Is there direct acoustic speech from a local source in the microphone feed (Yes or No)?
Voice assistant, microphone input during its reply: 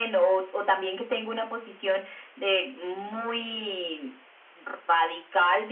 No